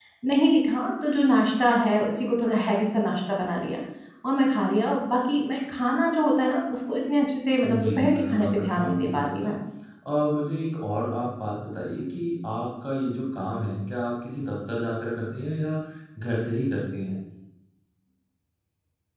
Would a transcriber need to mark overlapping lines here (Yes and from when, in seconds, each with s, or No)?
Yes, from 7.6 s